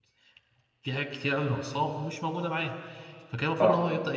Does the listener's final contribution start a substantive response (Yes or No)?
No